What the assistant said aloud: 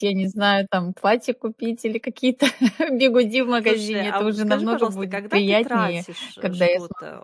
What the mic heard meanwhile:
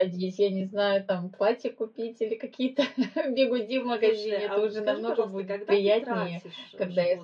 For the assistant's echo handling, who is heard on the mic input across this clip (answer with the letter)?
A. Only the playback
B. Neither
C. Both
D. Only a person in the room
A